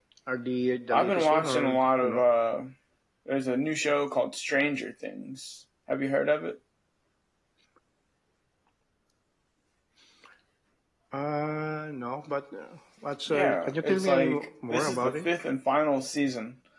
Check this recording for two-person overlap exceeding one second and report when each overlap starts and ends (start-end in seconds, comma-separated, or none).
0.9-2.2, 13.3-15.2